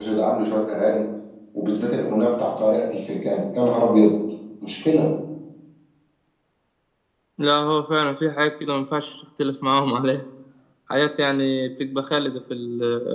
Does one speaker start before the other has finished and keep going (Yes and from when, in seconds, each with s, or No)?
No